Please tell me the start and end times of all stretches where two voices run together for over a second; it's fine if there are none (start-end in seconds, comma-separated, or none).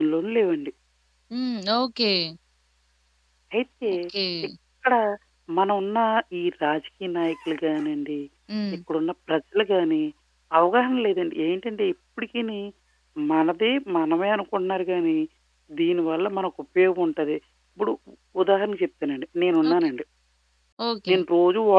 none